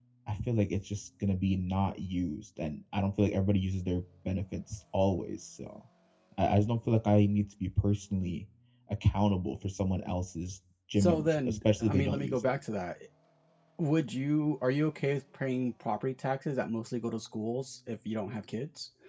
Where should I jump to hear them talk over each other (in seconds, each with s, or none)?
11.0 s